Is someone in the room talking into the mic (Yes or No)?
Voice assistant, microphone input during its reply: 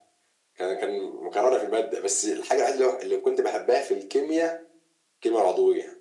No